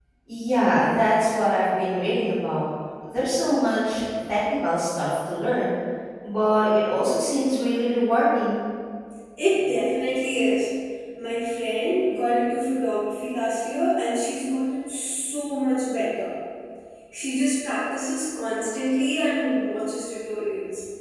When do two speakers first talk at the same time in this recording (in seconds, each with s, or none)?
none